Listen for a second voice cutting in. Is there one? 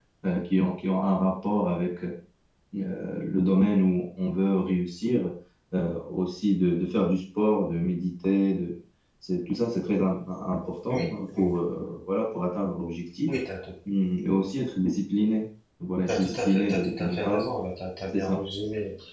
Yes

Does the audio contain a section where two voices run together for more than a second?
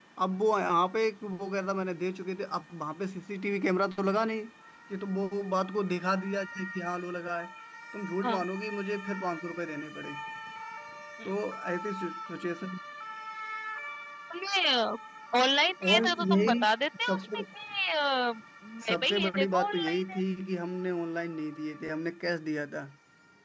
Yes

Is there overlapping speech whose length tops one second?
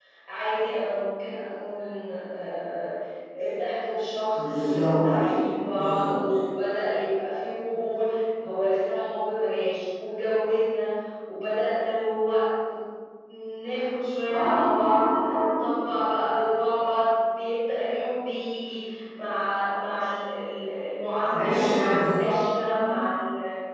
Yes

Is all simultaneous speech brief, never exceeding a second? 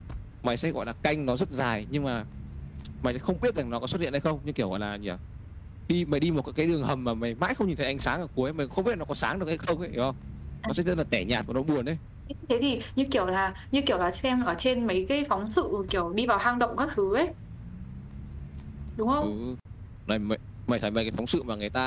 Yes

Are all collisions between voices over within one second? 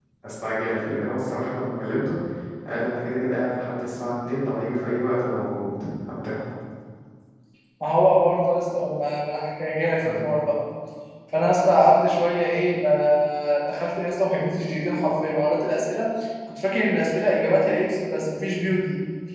Yes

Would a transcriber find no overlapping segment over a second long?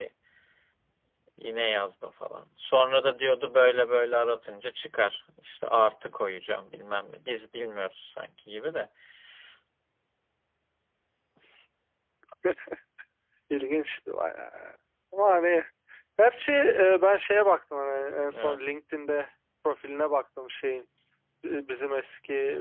Yes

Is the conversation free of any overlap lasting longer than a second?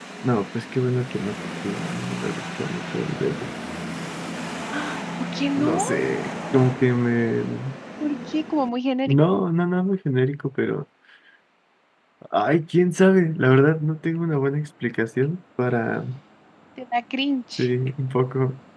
Yes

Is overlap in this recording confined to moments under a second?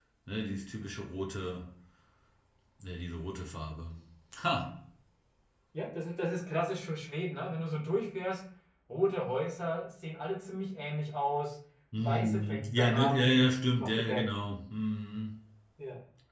No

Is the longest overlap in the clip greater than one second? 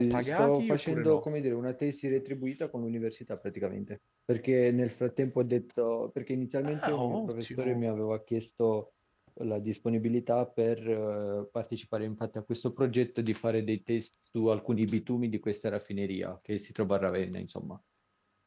Yes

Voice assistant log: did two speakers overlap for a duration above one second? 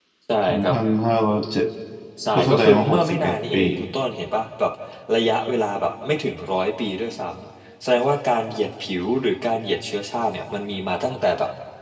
Yes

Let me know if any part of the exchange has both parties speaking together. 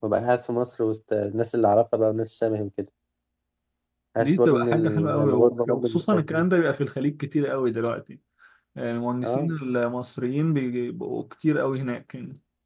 Yes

